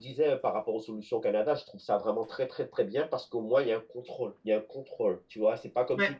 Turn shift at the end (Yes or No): No